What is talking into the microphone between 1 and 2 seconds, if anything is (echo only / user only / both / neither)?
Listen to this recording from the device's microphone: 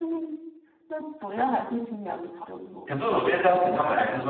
echo only